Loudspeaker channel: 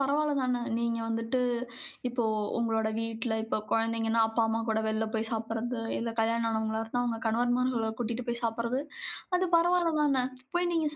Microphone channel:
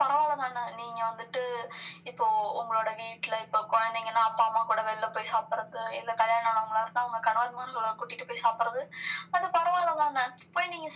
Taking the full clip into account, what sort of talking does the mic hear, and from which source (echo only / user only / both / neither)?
echo only